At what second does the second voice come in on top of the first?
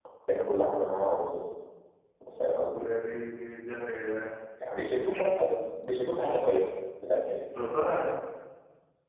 none

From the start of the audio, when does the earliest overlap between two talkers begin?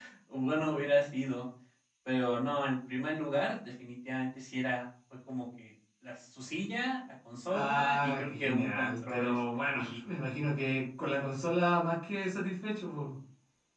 7.5 s

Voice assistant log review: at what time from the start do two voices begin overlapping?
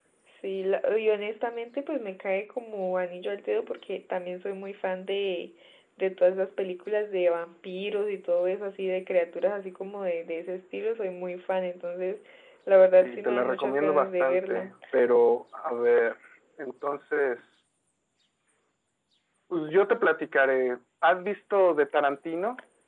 13.0 s

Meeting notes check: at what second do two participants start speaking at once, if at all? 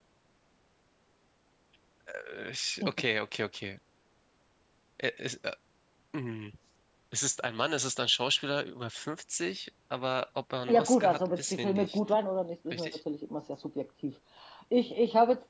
10.7 s

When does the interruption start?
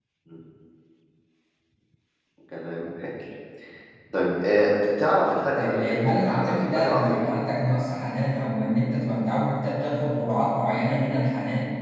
5.6 s

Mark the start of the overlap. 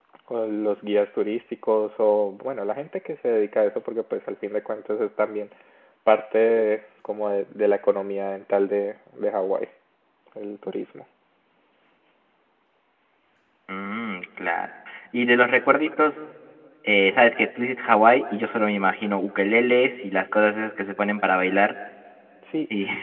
none

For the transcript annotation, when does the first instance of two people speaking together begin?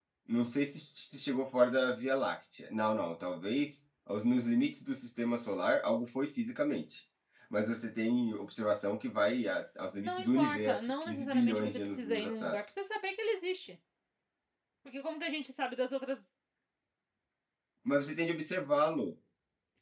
10.0 s

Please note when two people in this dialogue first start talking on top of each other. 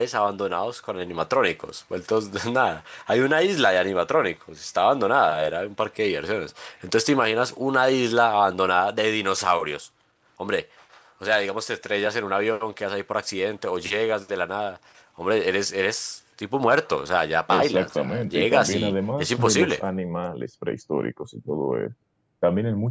17.5 s

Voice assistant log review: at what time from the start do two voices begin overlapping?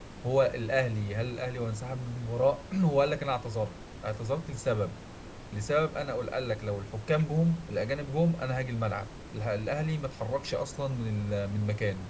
none

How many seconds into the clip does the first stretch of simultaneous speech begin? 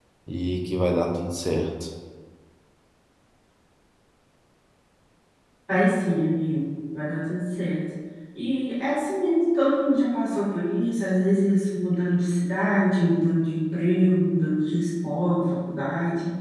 none

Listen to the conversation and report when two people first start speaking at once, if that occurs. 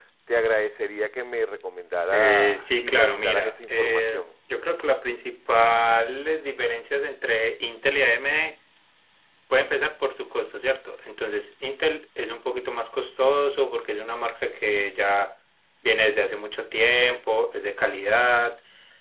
2.1 s

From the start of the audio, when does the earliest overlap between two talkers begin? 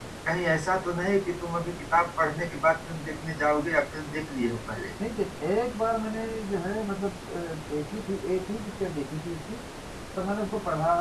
none

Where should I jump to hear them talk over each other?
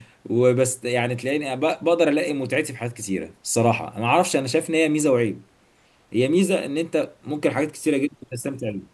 none

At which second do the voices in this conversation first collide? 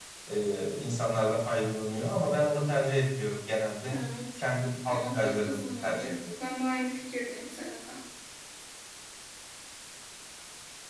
4.9 s

